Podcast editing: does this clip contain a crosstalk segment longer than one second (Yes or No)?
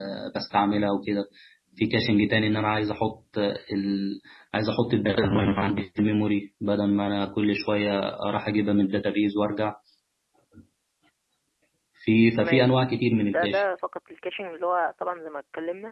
No